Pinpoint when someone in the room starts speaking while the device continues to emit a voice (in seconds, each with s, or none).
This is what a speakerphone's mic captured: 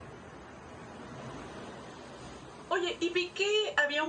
2.7 s